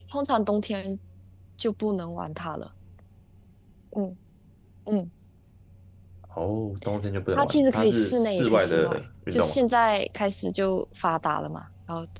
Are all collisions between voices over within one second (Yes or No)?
No